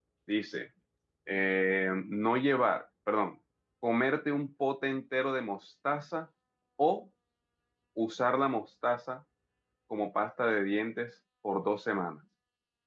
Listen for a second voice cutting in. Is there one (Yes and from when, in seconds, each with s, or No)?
No